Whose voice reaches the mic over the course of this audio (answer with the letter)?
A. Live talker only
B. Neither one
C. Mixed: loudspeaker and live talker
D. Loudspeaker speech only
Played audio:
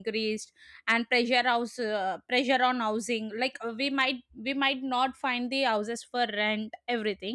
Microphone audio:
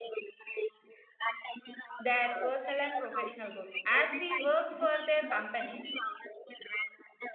C